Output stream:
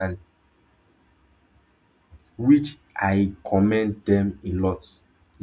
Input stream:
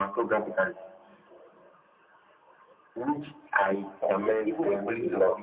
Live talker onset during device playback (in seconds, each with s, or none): 4.1 s